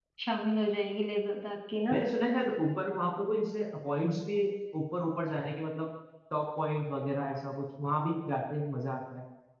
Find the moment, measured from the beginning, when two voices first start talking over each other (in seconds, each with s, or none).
none